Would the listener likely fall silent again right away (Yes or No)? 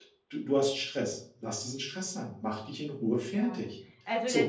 No